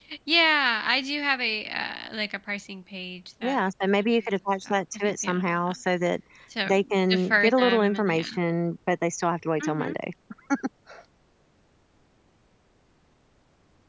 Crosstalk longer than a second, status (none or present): present